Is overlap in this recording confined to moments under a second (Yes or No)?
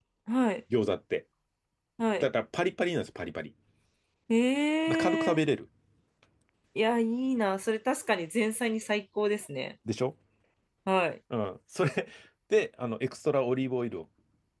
Yes